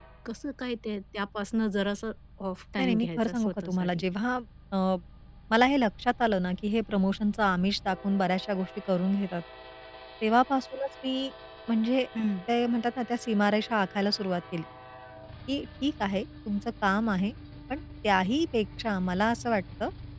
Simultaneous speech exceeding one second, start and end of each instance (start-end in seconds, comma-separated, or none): 2.8-4.0